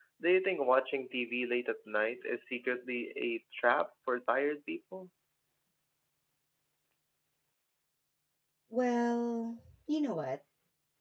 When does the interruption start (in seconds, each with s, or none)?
none